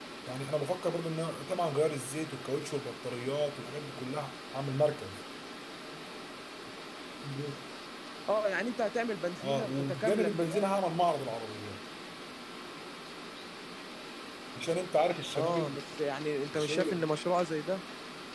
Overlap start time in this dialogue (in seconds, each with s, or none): 9.4 s